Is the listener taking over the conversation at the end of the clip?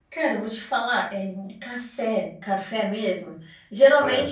No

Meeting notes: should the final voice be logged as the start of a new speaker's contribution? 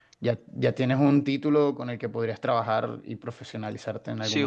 Yes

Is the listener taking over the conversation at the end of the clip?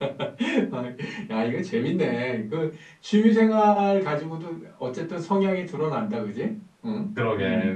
Yes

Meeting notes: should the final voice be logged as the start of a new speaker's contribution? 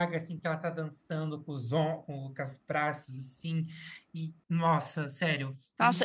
Yes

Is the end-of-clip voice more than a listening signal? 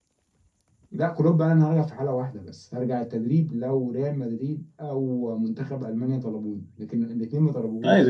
Yes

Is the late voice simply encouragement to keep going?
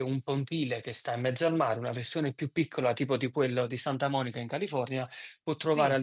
Yes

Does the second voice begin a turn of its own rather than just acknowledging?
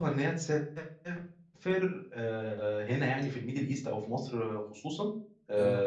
No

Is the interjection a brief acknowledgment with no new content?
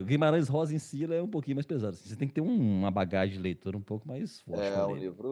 No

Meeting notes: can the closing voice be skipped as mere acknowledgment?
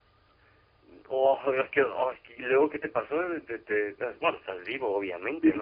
No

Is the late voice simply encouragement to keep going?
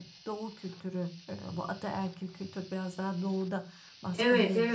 No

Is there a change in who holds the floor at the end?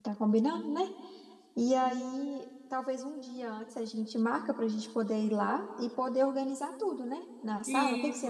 Yes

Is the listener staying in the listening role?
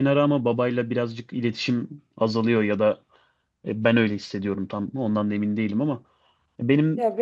Yes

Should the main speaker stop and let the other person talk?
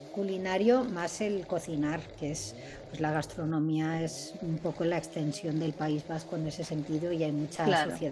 No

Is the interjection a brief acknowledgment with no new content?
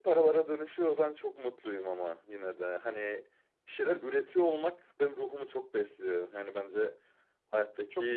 Yes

